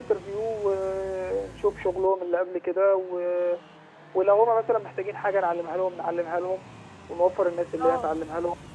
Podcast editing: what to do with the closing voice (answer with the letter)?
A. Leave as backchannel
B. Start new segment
A